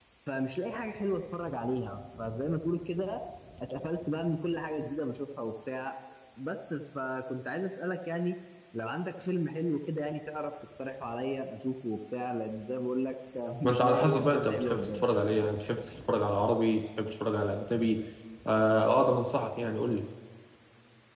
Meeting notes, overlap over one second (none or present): present